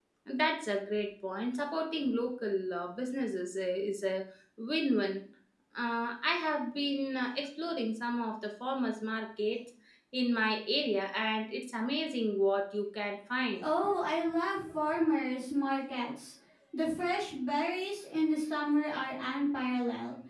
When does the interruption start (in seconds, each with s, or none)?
none